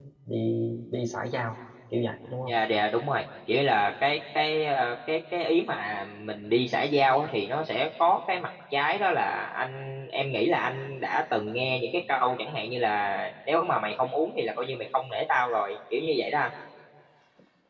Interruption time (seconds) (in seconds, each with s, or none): none